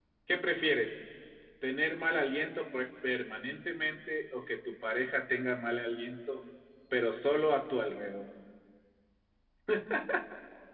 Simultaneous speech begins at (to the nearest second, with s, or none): none